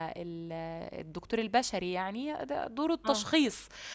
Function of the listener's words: listening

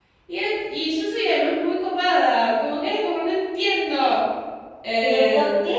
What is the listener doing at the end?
taking over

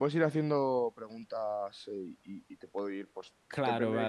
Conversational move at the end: taking over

